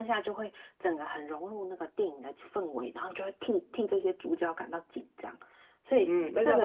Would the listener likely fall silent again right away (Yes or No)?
No